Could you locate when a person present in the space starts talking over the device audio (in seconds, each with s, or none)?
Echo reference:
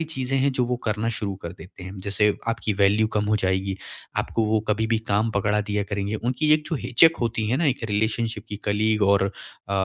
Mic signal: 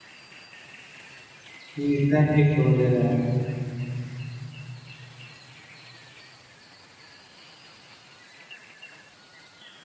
1.8 s